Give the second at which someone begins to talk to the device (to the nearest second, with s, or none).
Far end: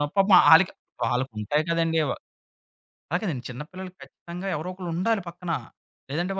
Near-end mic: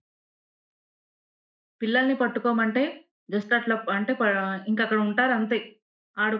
2 s